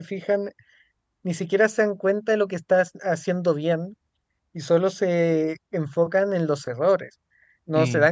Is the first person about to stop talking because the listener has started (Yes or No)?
No